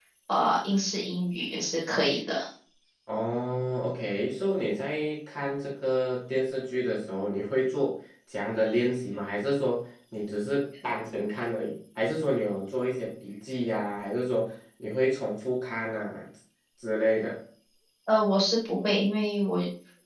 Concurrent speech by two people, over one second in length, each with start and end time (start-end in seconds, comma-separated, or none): none